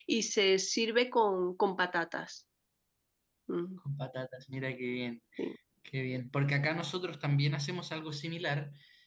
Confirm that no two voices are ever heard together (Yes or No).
Yes